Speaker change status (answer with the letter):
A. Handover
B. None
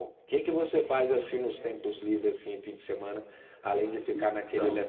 B